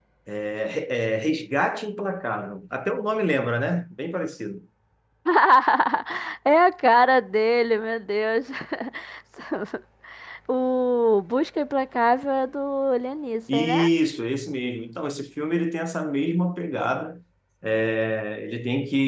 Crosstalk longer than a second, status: none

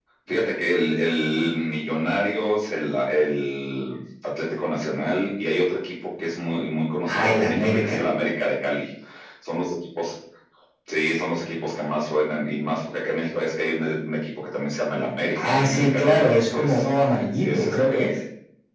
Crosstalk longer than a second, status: present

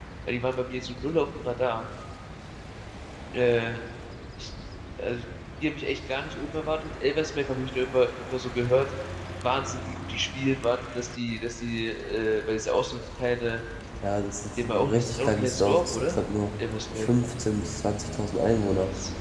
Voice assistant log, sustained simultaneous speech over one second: present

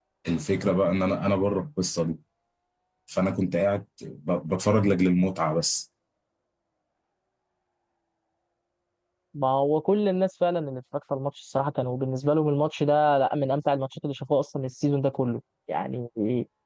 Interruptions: none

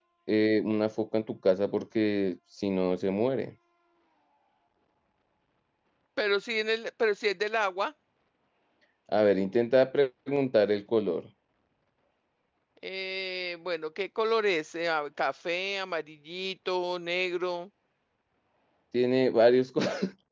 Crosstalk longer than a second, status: none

